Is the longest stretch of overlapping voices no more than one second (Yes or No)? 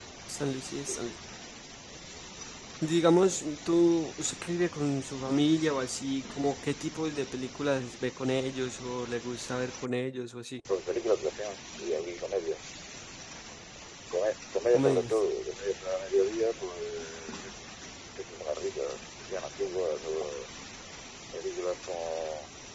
Yes